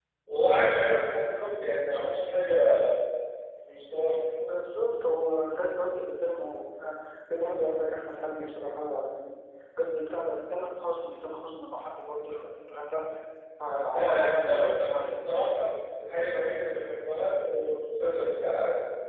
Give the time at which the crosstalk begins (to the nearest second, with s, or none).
14 s